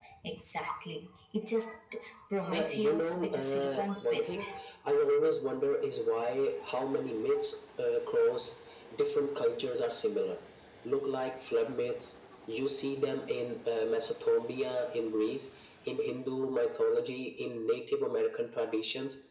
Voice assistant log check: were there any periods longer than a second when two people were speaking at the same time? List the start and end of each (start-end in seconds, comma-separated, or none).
2.5-4.3